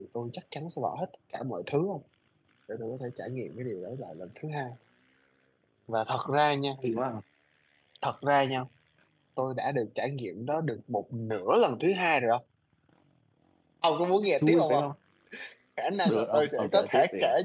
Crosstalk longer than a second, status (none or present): present